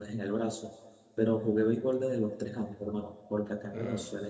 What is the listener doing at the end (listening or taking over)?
listening